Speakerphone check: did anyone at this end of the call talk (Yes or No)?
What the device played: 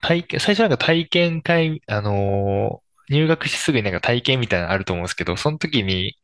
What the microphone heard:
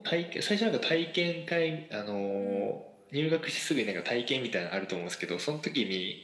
Yes